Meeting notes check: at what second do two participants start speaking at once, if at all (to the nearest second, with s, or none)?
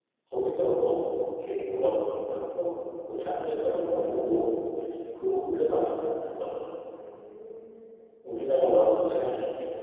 none